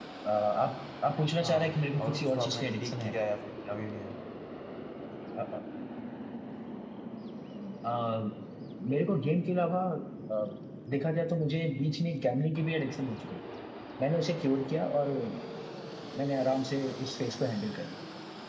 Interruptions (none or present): present